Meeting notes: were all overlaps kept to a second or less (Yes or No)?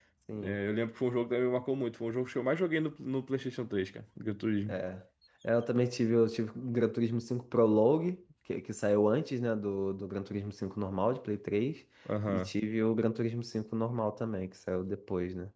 Yes